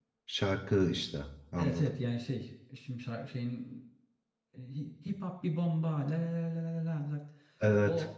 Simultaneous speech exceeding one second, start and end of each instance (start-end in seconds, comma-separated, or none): none